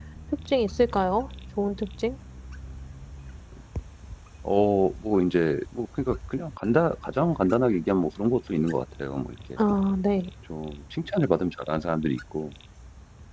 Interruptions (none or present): none